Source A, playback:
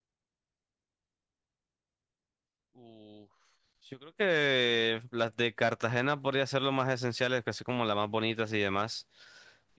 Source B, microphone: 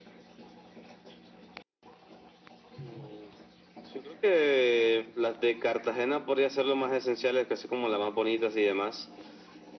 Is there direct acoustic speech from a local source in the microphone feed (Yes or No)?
No